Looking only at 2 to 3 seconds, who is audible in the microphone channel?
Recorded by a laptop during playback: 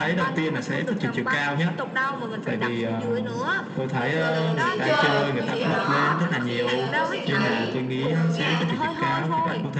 echo only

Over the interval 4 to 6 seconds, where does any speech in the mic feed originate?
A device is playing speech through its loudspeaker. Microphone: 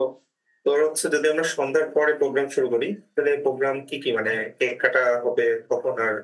echo only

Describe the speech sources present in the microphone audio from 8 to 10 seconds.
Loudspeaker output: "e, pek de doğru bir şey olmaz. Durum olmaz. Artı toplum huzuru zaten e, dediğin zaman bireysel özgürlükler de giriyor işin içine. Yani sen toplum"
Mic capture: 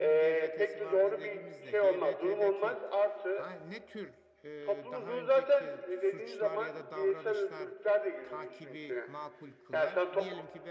both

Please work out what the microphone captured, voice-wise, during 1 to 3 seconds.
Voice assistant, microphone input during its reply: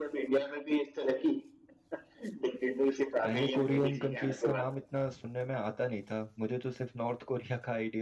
echo only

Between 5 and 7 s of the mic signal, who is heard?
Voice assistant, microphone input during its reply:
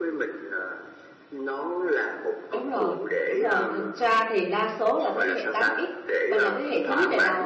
both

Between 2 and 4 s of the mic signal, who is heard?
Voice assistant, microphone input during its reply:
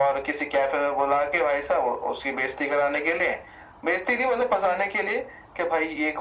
echo only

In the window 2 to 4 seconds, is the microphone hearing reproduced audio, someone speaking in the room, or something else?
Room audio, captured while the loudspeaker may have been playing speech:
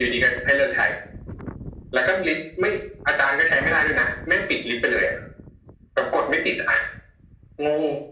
echo only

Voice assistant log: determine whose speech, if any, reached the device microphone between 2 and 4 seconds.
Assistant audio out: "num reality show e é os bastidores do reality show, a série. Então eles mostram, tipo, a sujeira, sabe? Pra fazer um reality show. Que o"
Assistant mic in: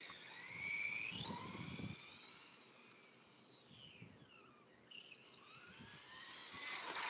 neither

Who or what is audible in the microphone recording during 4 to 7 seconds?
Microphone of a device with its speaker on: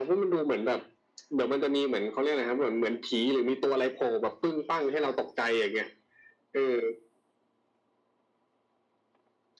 echo only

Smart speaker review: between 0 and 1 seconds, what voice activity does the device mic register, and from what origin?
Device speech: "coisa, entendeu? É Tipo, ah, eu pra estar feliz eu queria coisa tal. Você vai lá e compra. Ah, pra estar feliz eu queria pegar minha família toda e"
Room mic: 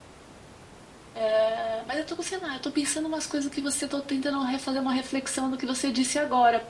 neither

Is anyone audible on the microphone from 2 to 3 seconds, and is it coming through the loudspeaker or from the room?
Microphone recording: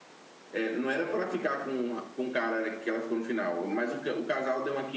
echo only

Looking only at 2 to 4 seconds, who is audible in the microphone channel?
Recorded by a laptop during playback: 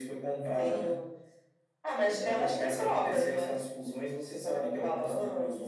echo only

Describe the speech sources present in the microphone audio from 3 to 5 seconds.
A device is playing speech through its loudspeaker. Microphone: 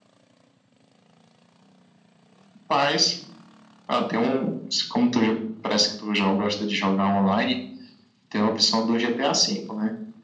echo only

